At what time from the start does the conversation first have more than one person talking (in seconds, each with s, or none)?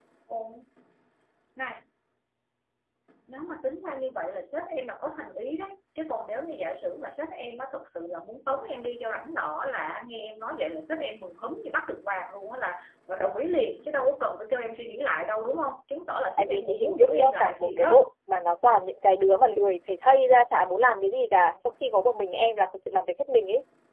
16.4 s